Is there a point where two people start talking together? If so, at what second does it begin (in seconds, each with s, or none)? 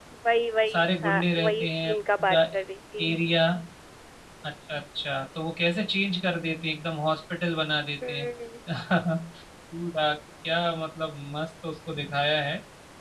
0.7 s